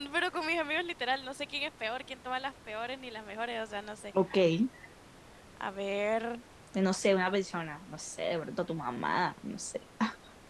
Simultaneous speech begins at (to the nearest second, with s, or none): none